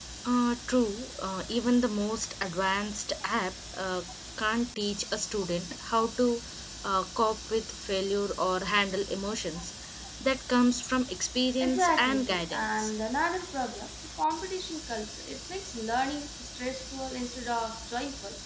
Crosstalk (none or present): present